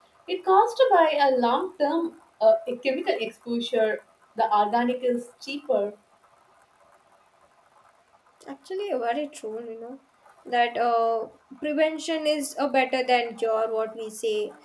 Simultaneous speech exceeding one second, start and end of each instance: none

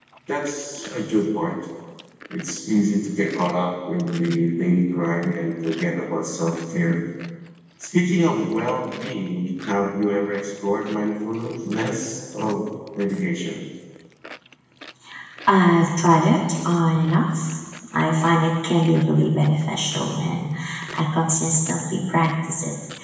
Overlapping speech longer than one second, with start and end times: none

